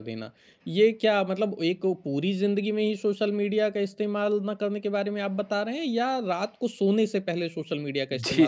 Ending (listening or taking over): taking over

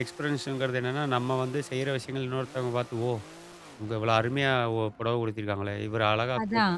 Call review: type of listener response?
taking over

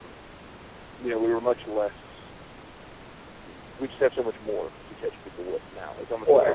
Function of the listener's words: listening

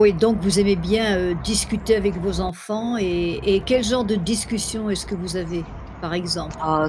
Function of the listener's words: taking over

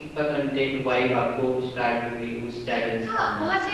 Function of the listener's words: taking over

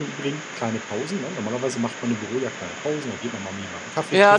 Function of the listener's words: taking over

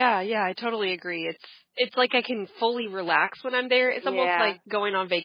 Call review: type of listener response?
listening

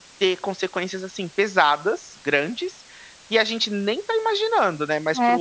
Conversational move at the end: taking over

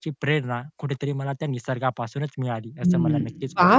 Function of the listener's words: taking over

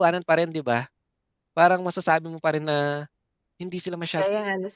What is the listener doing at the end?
taking over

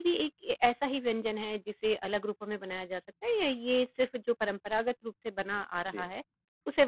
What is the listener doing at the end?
listening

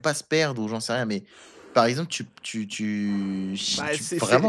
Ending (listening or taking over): taking over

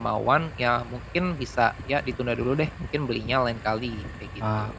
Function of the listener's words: taking over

